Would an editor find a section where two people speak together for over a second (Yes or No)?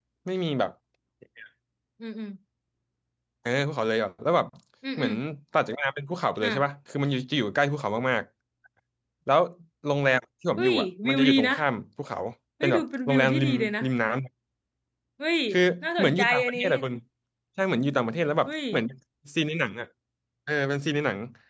Yes